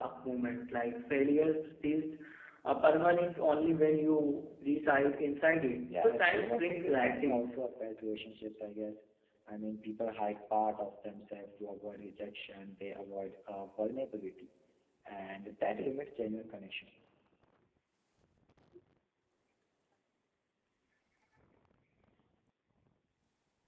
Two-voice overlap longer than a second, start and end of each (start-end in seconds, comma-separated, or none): 5.9-7.5